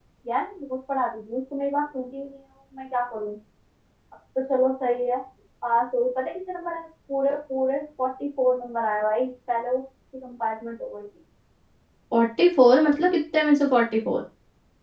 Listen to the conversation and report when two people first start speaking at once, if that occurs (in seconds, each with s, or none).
none